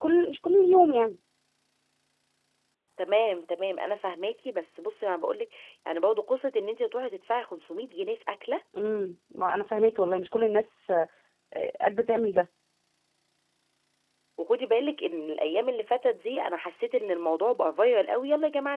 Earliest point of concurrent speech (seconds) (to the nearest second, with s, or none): none